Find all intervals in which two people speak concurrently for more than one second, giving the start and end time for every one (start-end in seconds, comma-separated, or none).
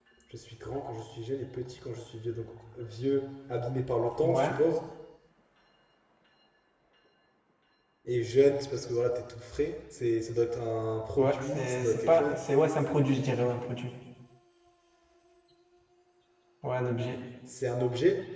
11.2-12.4